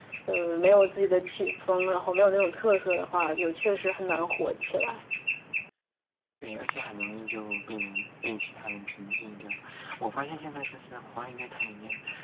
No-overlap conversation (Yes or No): Yes